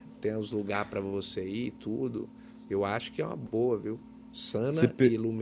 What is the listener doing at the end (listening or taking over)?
listening